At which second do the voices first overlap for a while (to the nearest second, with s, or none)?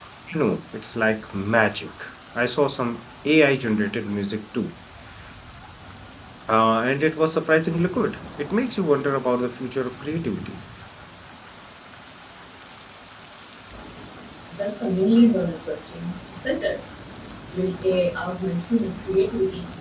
none